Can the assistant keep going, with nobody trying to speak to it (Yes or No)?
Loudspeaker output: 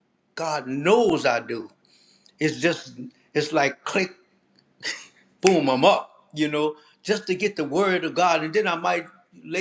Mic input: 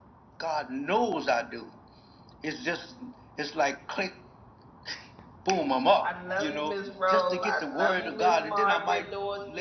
No